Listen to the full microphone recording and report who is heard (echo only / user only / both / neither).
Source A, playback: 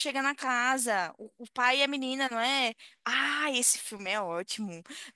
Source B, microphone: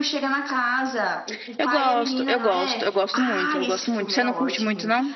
both